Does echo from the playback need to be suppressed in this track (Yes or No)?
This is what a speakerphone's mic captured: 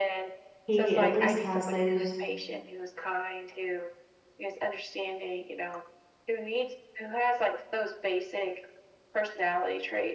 Yes